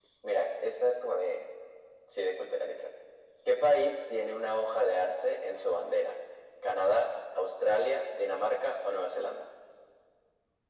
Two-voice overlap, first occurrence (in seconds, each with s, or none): none